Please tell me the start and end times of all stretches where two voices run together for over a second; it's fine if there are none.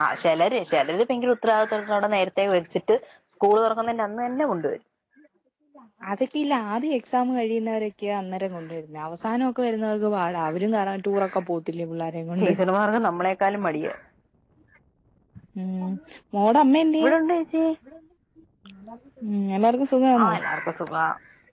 none

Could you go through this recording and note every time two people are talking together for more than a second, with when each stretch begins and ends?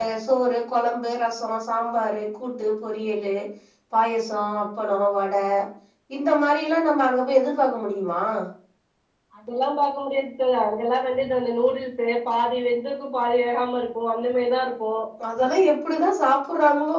none

